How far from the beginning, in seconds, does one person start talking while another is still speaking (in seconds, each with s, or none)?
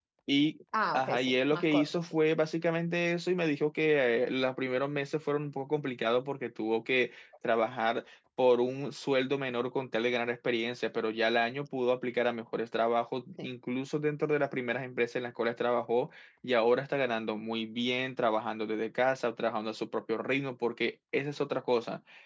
0.9 s